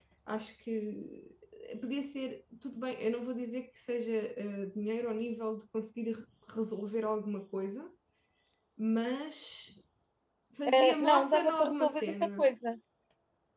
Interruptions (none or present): present